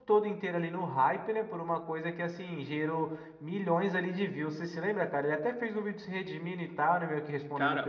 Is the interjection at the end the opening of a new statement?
Yes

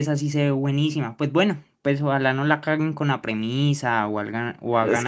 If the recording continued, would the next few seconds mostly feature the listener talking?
Yes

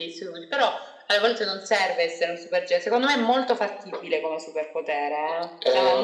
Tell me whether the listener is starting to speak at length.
Yes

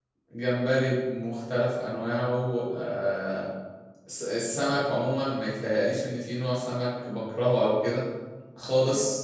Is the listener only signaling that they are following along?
Yes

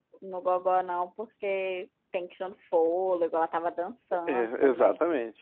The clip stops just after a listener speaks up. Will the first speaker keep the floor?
No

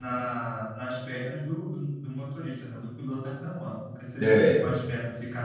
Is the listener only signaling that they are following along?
Yes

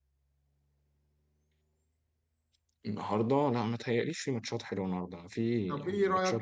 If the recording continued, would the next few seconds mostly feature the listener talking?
Yes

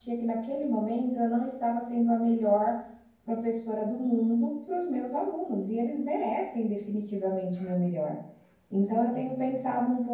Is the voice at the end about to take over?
No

